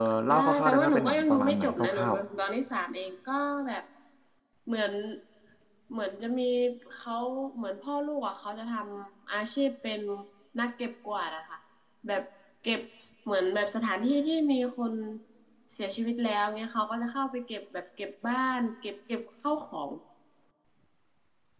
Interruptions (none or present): present